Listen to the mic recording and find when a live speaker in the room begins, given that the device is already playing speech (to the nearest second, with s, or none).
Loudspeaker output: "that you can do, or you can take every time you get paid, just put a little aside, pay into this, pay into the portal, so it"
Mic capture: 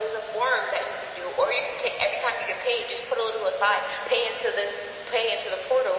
none